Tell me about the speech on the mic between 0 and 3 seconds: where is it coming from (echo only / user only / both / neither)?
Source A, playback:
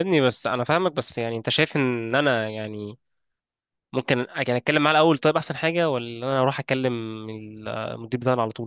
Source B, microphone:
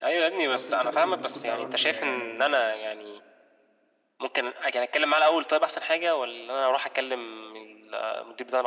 both